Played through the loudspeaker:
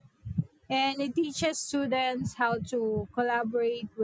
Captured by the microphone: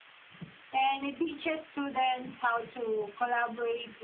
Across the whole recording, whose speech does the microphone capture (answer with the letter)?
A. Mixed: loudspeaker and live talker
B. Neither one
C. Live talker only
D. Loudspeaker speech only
D